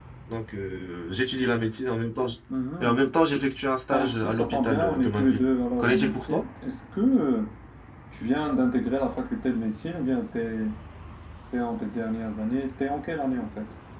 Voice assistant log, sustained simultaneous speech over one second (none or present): present